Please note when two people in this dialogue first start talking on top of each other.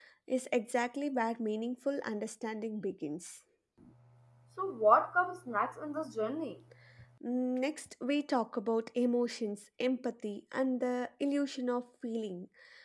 none

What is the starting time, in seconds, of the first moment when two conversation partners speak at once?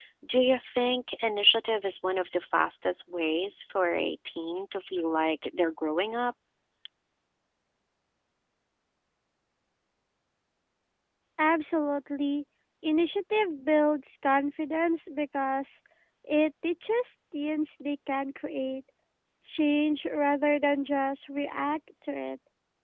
none

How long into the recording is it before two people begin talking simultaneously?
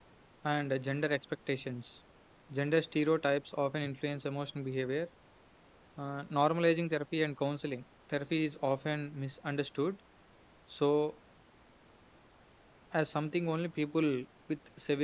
none

